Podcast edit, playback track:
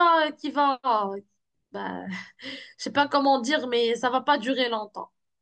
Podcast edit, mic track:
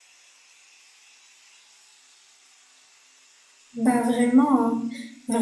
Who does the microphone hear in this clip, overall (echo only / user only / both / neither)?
user only